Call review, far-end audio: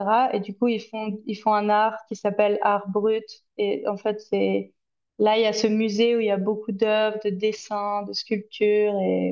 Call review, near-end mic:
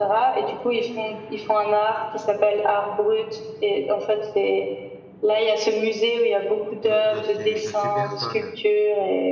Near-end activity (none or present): present